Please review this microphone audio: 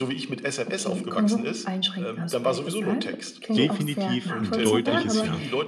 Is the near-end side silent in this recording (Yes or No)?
No